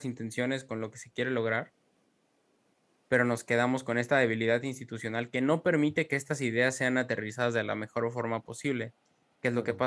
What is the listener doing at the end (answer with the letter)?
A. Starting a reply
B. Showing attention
B